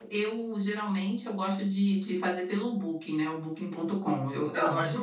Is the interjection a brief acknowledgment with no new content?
No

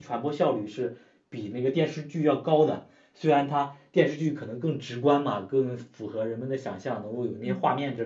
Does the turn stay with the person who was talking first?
Yes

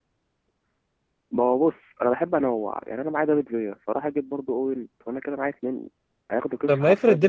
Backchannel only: No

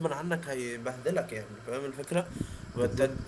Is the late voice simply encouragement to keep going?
Yes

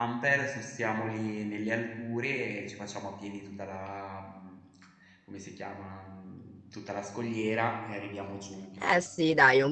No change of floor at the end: No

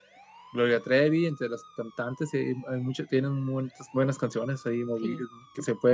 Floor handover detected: No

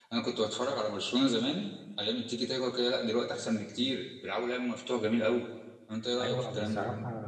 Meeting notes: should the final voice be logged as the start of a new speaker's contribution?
Yes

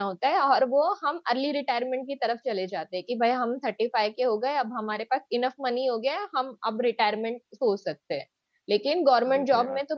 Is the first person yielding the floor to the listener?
No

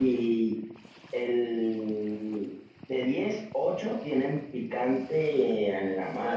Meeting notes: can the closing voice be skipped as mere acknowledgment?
No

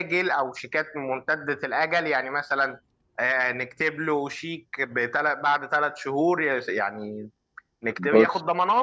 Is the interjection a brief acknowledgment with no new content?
Yes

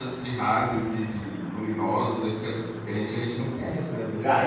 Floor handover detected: Yes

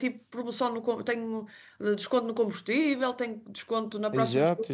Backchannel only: No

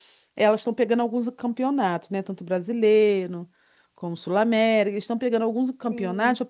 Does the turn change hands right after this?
No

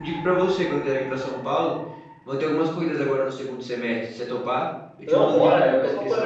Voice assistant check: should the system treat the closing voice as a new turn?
Yes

